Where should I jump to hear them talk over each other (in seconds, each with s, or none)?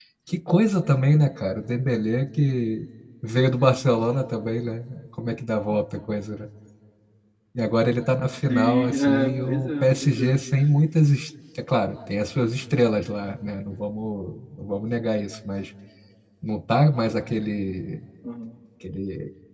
8.5 s